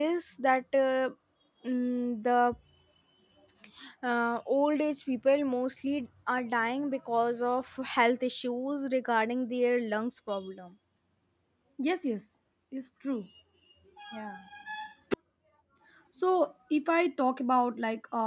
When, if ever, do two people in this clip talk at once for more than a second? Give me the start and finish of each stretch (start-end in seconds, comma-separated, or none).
none